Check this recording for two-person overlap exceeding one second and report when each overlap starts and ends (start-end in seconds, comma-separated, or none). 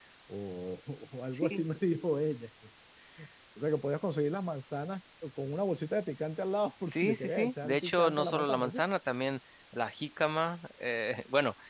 6.8-8.8